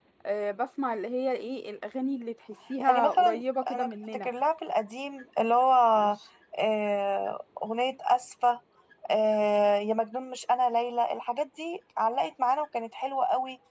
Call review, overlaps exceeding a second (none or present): present